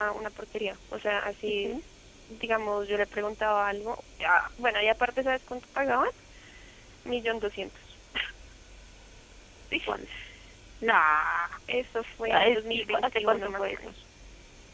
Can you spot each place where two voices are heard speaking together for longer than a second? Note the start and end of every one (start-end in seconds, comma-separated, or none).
12.3-13.9